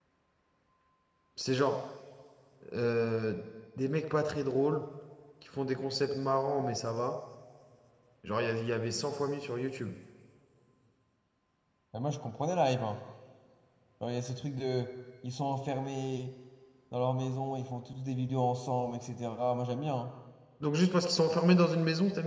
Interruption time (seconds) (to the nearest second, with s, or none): none